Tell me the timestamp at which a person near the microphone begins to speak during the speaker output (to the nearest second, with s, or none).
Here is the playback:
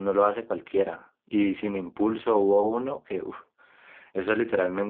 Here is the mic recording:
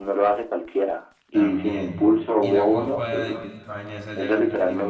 1 s